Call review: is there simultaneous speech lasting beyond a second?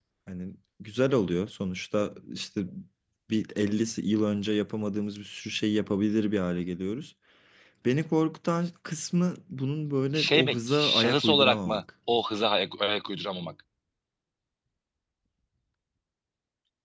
Yes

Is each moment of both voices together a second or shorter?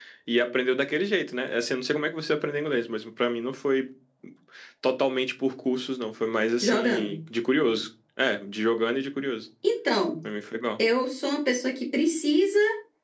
Yes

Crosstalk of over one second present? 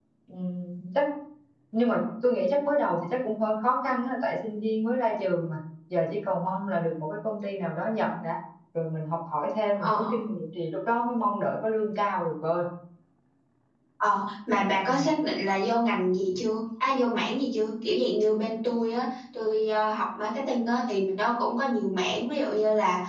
No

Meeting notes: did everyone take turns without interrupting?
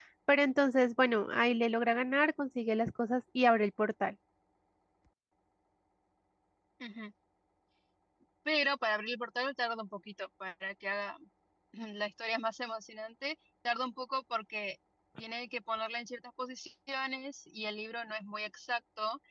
Yes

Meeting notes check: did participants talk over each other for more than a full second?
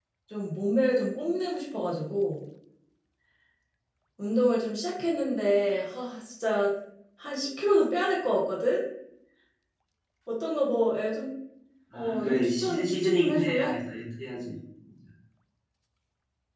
Yes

